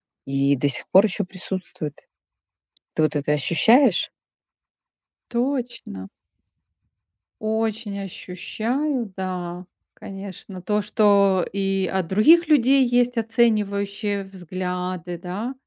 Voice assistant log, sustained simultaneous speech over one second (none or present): none